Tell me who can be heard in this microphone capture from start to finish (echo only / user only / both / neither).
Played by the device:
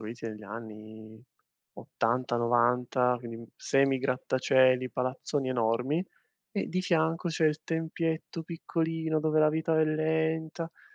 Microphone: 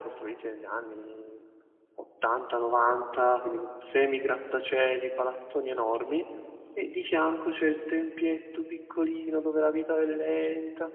echo only